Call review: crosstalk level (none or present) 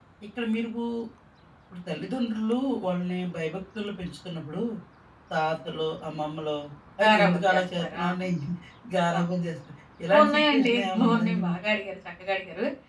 present